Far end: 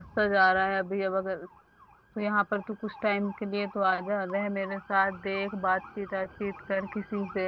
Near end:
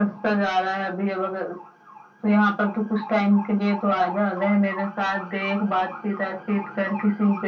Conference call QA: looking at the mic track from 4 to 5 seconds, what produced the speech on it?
echo only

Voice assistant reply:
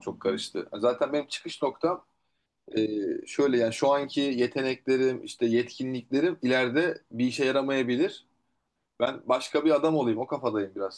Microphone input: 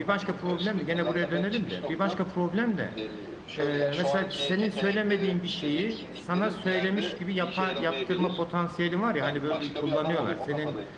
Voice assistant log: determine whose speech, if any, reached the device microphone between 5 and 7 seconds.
both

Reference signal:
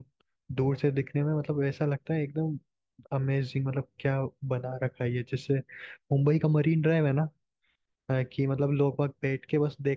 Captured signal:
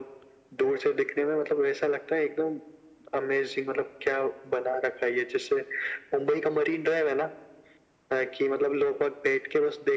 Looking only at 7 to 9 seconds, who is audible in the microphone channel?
echo only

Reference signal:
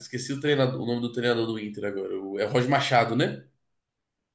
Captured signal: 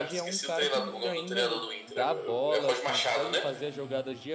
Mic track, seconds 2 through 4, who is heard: both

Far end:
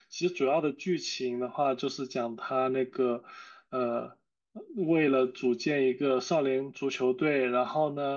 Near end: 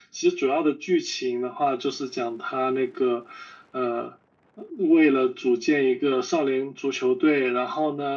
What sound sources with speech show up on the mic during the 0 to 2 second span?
echo only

